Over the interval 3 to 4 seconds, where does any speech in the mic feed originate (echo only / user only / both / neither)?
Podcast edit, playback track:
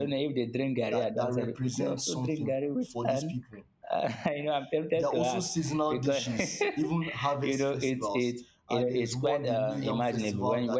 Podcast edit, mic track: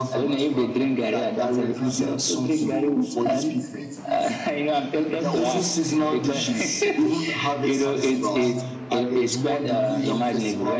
both